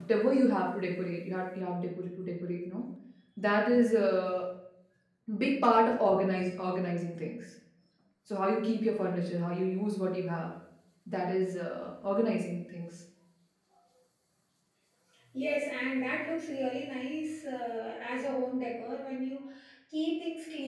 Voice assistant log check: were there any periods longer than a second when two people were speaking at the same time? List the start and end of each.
none

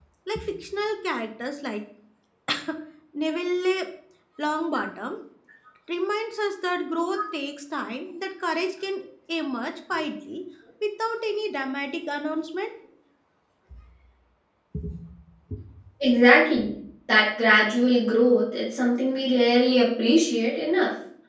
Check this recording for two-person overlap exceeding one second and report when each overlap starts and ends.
none

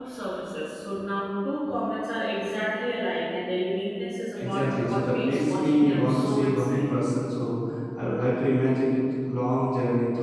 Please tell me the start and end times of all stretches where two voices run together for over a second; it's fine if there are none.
4.4-6.8

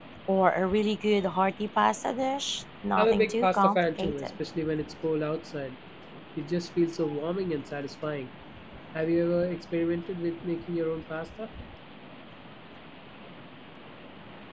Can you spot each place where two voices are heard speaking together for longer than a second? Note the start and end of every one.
3.0-4.3

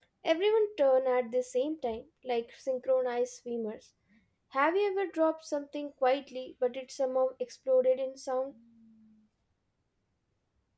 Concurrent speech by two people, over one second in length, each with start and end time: none

